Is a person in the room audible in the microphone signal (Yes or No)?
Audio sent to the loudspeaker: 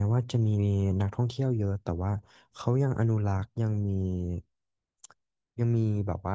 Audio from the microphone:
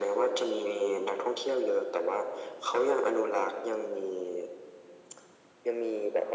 No